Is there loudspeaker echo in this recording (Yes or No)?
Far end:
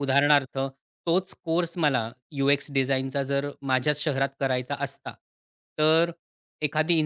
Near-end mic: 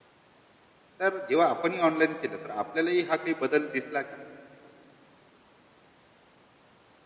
No